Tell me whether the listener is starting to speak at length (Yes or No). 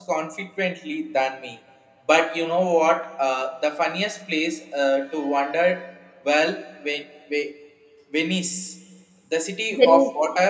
No